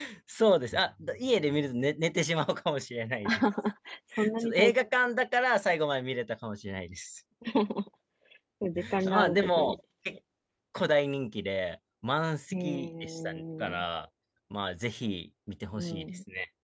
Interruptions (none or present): present